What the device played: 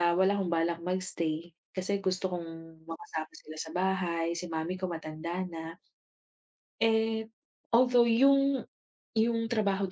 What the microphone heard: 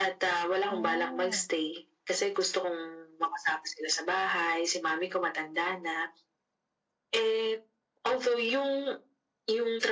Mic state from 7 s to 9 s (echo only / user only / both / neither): echo only